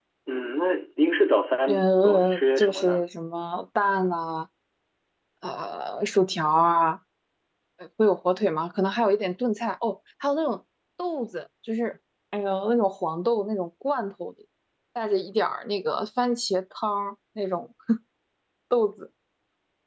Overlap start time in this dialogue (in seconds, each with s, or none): 1.7 s